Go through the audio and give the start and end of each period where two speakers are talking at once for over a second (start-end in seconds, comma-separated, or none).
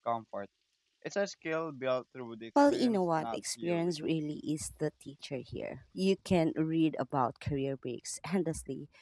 2.7-3.9